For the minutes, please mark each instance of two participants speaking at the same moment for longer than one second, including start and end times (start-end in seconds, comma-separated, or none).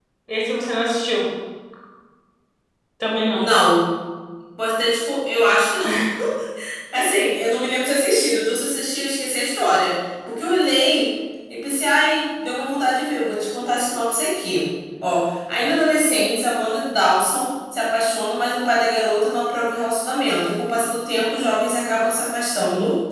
none